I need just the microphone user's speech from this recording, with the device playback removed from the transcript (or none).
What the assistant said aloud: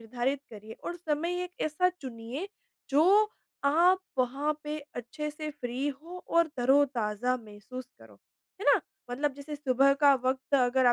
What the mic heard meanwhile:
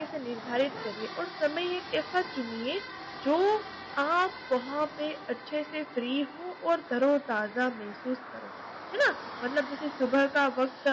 none